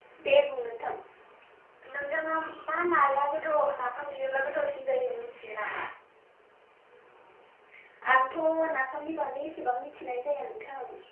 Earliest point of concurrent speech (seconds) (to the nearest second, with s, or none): none